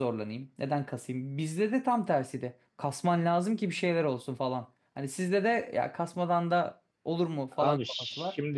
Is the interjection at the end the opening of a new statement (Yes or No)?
Yes